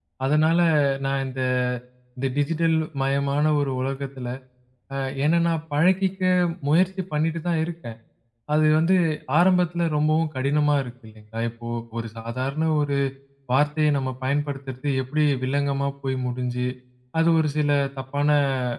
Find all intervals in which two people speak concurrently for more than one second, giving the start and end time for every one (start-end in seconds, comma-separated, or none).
none